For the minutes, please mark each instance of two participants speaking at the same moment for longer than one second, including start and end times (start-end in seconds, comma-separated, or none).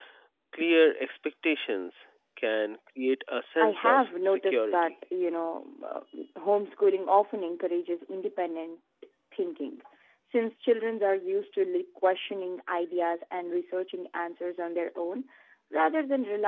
3.6-4.9